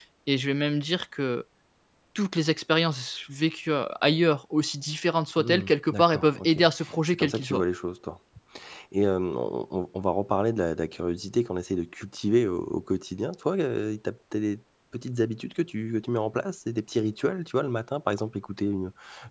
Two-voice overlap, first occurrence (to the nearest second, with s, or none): 5 s